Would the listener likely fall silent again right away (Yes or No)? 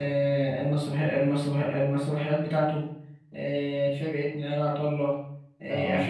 Yes